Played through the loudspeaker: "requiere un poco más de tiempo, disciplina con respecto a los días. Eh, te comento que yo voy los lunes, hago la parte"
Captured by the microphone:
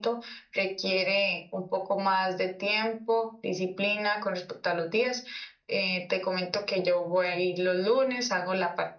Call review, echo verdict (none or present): present